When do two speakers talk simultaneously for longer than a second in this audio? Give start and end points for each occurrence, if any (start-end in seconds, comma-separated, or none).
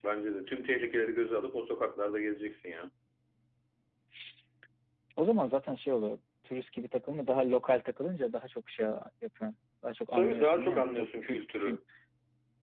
10.1-11.8